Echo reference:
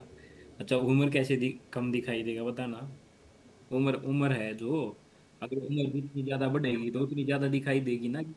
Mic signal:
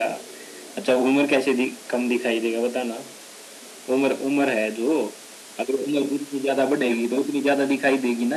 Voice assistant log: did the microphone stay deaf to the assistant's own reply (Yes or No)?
No